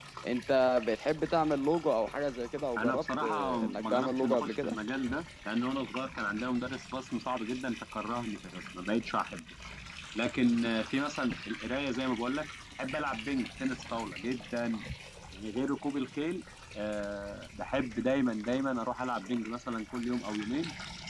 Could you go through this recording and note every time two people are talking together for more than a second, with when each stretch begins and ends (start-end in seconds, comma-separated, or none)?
2.8-4.8